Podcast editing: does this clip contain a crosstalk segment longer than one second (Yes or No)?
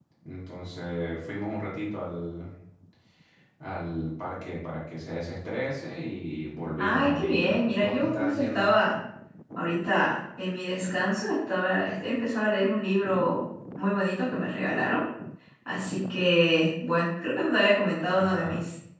Yes